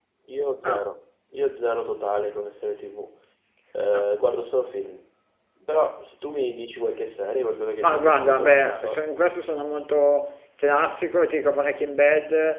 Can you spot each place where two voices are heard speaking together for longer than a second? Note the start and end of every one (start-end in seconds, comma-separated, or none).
7.8-9.1